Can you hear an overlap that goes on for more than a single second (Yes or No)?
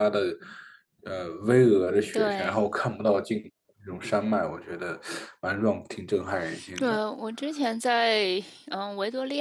No